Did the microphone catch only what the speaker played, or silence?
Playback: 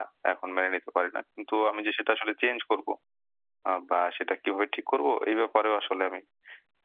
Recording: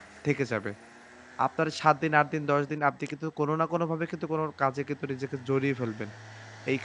No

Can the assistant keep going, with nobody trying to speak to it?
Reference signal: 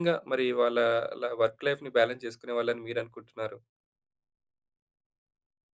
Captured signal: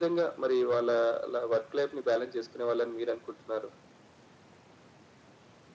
Yes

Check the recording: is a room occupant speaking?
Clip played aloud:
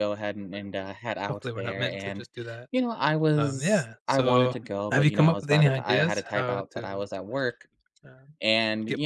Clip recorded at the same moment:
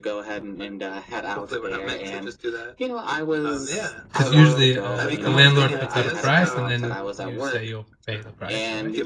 Yes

